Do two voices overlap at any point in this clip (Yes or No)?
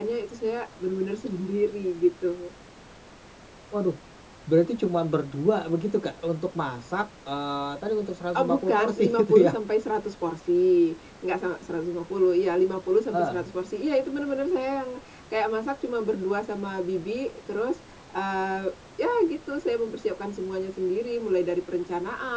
Yes